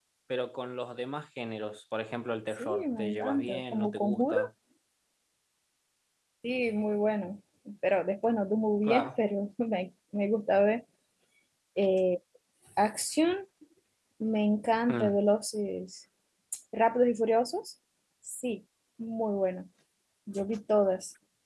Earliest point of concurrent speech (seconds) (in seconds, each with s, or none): 2.6 s